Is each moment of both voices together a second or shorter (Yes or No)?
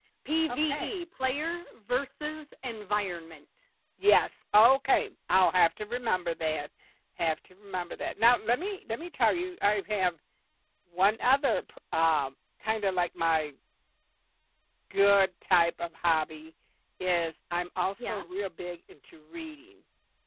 Yes